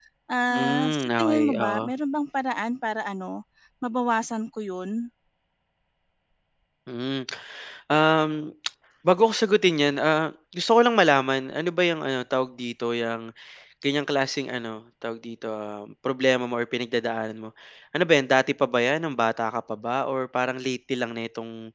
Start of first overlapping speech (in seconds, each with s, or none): 0.5 s